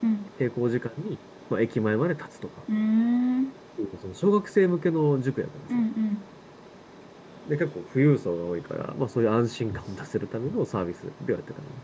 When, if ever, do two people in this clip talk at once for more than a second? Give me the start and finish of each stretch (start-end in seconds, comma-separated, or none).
none